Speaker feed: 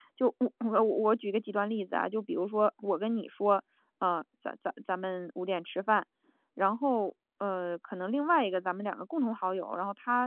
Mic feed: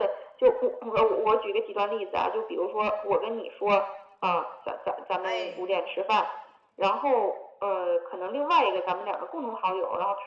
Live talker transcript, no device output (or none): 哎。